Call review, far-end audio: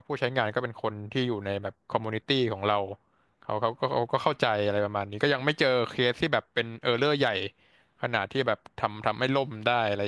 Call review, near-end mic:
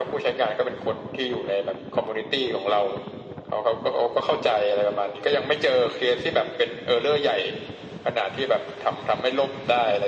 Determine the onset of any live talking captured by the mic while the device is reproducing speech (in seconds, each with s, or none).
none